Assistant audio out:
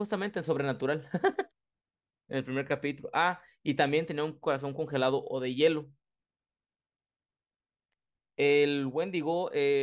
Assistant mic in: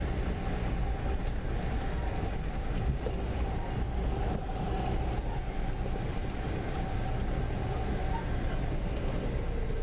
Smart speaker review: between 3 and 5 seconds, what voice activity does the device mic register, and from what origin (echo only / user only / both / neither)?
neither